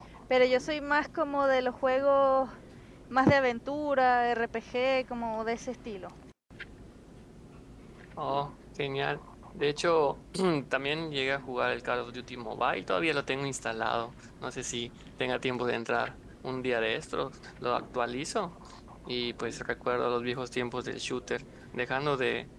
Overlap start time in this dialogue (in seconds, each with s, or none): none